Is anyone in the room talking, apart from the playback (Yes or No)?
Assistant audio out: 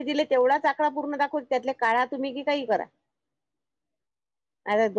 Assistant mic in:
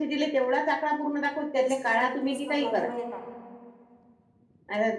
Yes